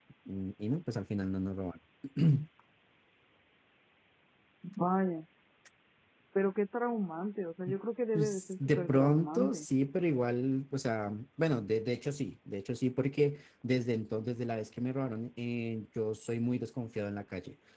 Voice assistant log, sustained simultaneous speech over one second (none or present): present